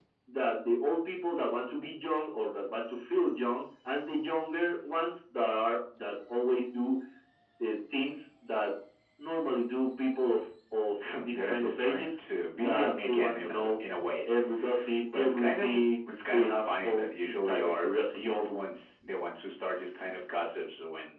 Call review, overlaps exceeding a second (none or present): present